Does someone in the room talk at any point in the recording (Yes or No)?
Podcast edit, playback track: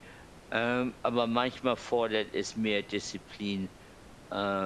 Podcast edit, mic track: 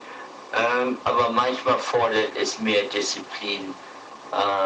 No